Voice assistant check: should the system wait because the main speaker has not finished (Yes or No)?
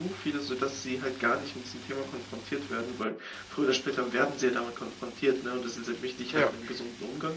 Yes